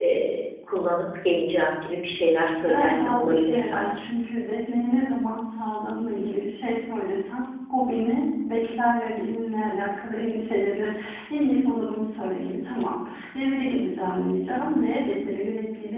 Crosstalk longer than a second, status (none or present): present